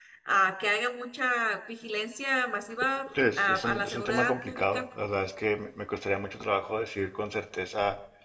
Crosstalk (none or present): present